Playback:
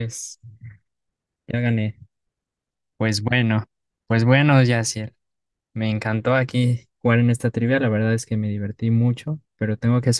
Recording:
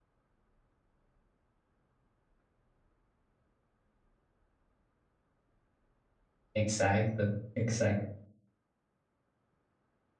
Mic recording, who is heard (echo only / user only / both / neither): user only